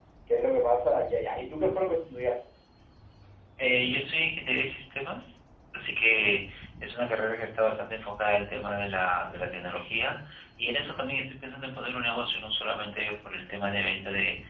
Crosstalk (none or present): none